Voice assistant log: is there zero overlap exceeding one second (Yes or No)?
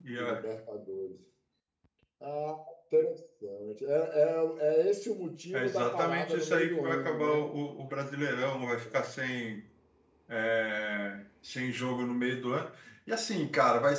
No